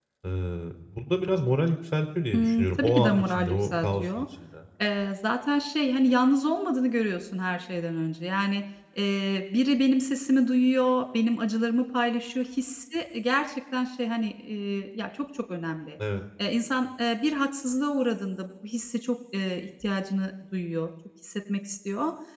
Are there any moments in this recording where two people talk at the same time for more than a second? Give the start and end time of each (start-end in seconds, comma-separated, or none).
2.3-4.2